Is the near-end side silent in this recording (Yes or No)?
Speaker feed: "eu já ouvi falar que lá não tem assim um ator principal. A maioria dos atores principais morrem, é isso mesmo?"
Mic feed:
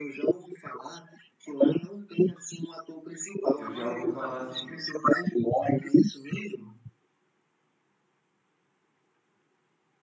No